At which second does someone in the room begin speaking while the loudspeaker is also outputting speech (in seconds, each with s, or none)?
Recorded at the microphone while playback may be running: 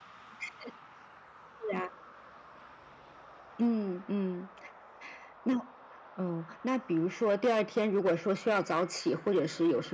none